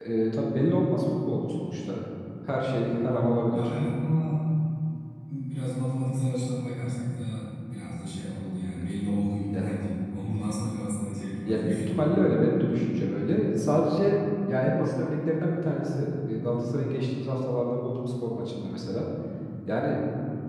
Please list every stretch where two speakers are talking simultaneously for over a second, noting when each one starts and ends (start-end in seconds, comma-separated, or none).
none